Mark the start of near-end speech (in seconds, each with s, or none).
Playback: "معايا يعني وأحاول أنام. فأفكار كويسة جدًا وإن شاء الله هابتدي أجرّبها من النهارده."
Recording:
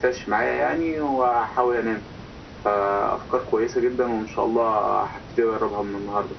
none